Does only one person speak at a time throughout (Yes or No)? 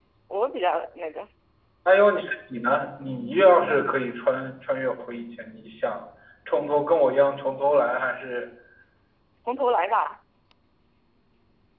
Yes